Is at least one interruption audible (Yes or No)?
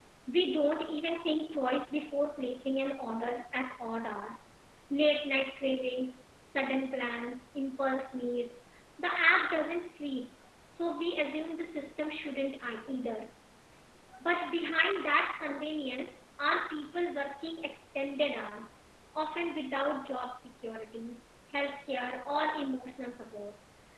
No